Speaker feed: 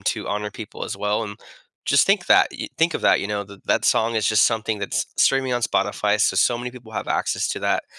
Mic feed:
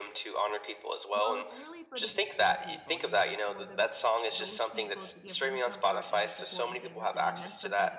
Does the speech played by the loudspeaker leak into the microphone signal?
Yes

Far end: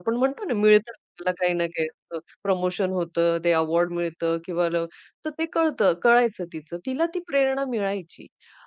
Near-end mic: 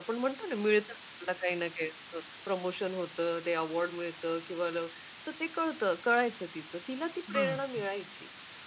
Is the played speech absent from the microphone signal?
No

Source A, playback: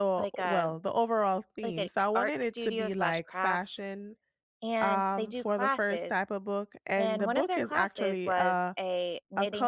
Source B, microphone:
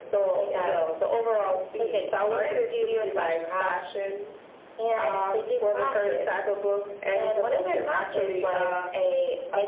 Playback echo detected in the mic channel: Yes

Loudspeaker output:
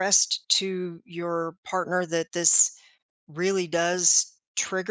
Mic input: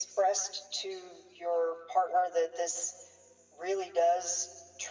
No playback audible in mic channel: No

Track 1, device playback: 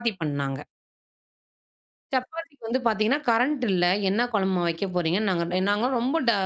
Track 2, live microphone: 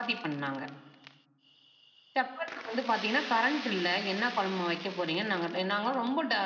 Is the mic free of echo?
No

